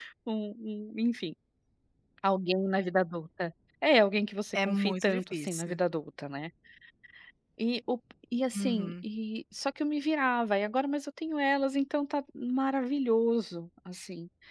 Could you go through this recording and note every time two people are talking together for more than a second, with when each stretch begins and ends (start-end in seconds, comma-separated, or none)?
4.5-5.8